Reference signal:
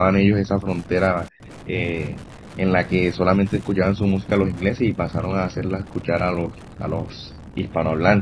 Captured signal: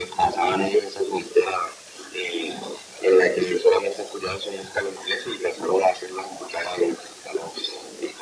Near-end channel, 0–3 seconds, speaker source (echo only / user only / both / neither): echo only